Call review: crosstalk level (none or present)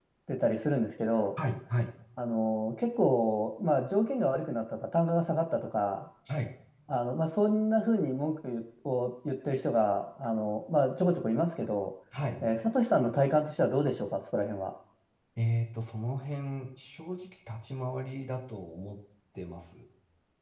none